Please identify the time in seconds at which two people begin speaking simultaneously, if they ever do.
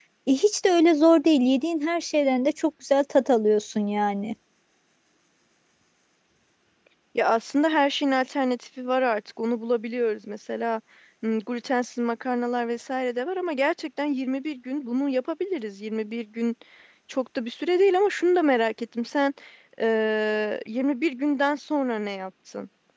none

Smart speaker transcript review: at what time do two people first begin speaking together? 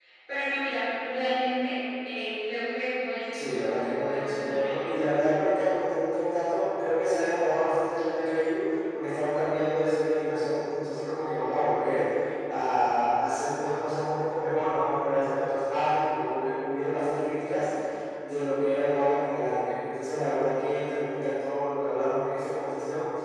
3 s

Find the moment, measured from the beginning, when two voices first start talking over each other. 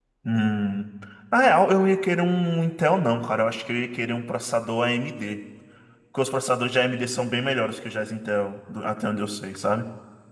none

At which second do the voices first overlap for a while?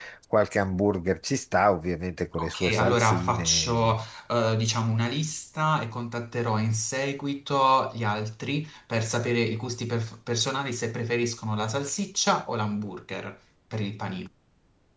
2 s

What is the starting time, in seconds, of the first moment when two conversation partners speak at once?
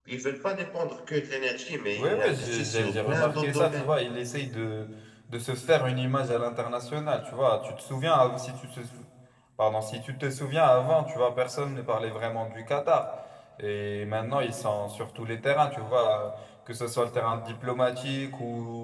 2 s

